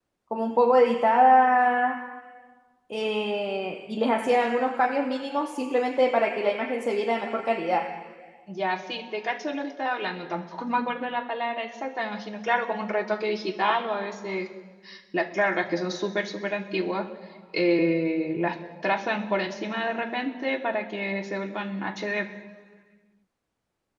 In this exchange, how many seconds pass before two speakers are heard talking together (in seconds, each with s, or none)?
none